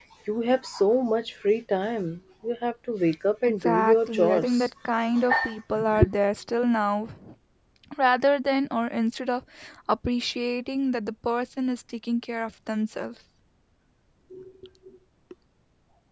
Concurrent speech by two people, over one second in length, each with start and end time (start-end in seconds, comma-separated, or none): 3.5-4.7